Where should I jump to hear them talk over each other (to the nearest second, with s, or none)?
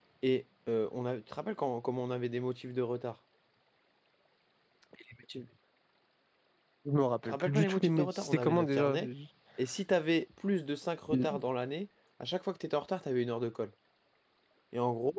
7 s